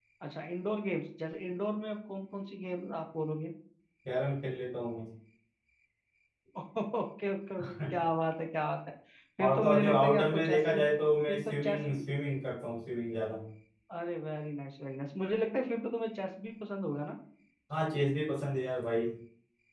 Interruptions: present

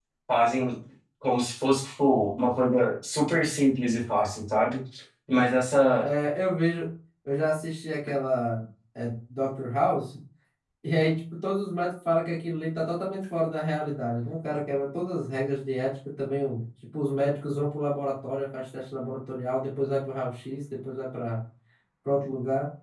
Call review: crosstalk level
none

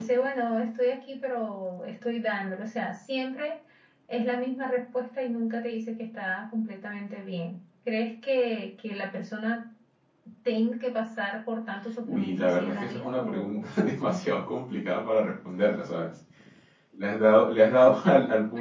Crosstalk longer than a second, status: present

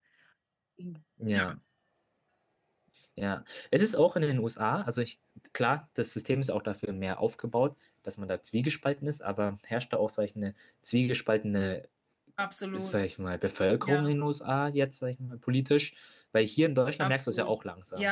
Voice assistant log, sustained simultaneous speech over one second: none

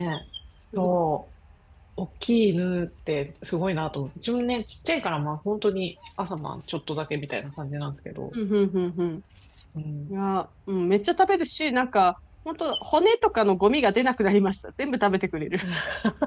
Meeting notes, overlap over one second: none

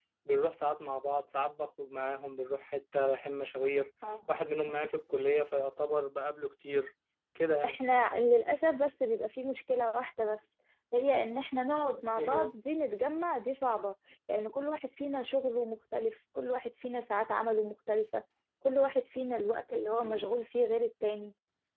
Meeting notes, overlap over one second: none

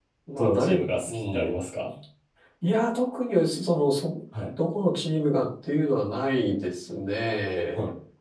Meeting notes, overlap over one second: present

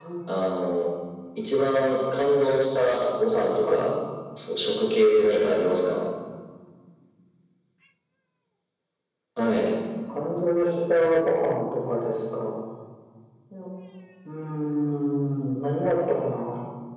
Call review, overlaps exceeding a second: none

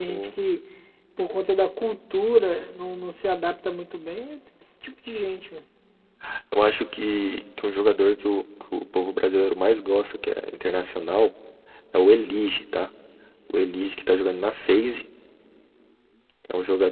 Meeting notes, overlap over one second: none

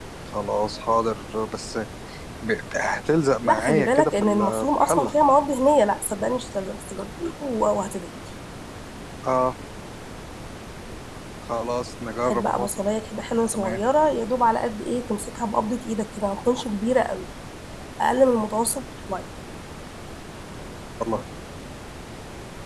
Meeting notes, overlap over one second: present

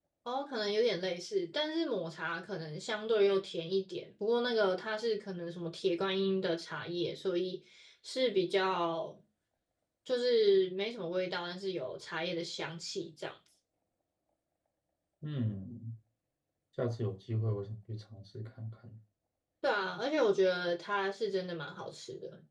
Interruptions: none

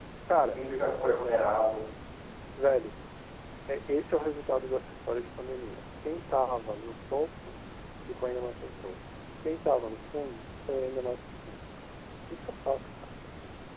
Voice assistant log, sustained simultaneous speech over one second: none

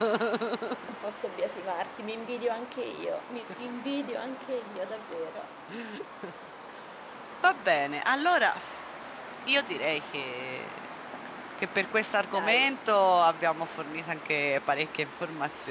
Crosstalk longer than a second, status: none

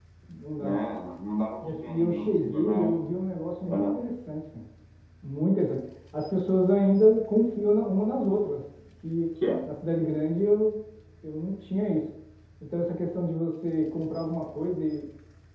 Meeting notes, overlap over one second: present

